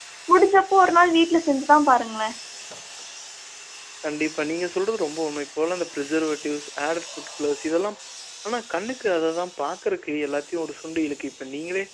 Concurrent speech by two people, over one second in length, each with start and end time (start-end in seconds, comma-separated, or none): none